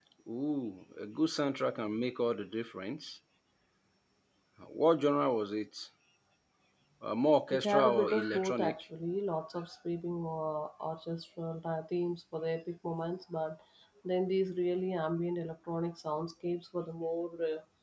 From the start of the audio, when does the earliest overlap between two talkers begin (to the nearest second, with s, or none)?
8 s